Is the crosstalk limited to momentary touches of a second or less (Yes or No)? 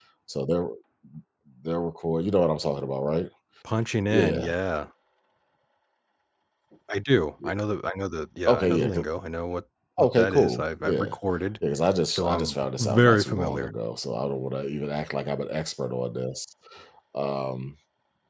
No